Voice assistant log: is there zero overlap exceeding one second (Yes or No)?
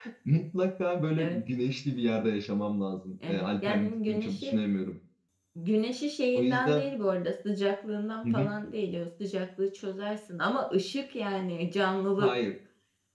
No